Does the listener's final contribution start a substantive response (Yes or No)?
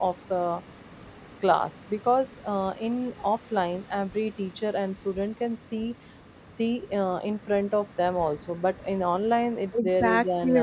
Yes